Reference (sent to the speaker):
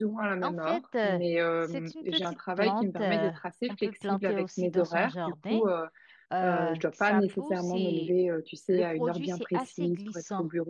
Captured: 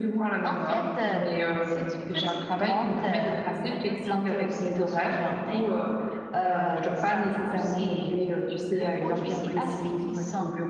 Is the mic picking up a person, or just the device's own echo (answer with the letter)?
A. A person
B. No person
B